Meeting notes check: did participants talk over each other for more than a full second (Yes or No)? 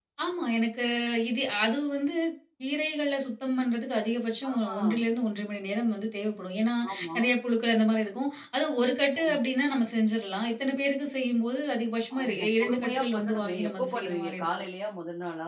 Yes